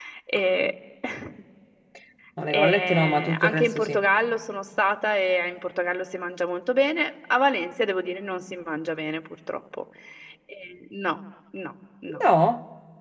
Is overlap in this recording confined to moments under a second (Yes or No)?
No